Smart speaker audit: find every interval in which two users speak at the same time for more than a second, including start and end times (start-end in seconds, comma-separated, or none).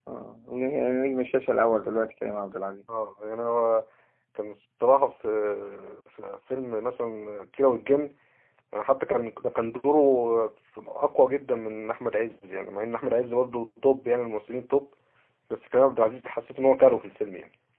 none